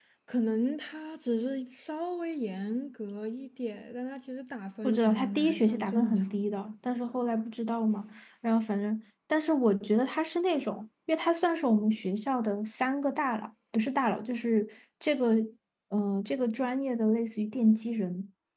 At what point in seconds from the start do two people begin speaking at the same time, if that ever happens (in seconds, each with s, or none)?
4.8 s